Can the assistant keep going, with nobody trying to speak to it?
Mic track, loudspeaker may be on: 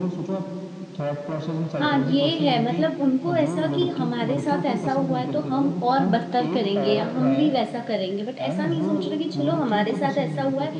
No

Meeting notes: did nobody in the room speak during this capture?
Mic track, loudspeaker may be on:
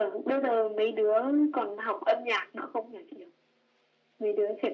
Yes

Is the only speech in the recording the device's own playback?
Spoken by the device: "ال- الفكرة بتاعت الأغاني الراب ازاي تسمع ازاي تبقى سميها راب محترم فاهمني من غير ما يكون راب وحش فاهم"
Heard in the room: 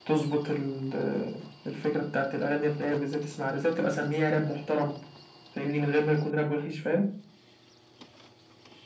Yes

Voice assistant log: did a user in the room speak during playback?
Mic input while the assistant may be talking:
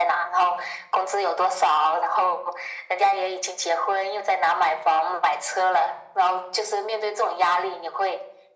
No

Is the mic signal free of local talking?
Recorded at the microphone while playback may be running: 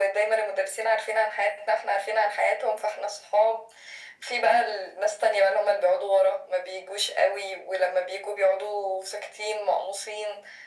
Yes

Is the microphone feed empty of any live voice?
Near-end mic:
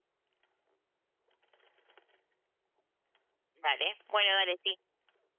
No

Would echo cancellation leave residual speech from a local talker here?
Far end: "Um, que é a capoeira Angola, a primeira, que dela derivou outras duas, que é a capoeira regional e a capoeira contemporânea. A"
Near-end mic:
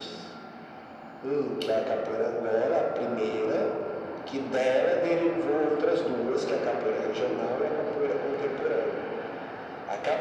No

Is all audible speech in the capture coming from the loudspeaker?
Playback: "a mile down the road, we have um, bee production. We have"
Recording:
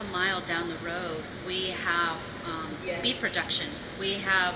No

